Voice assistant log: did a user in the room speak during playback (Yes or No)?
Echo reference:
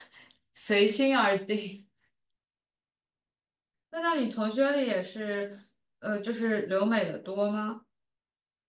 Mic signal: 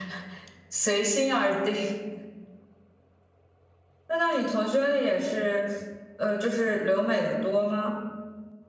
No